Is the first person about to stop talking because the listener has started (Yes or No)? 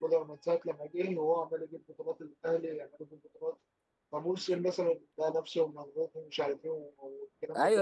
Yes